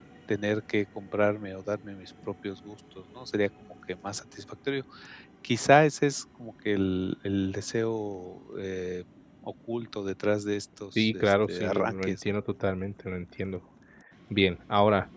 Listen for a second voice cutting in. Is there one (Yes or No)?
Yes